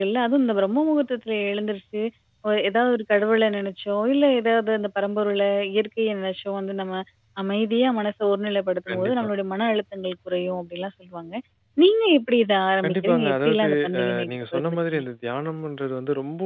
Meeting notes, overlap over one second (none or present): present